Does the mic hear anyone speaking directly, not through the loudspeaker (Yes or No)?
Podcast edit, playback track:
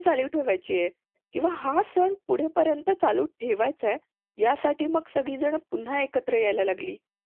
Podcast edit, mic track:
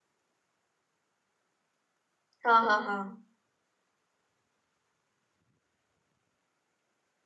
Yes